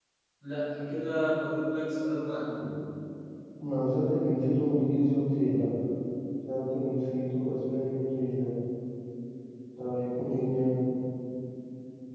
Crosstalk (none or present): none